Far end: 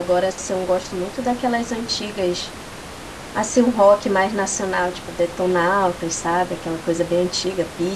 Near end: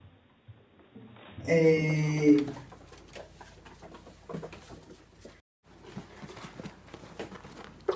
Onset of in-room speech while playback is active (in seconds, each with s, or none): 1.5 s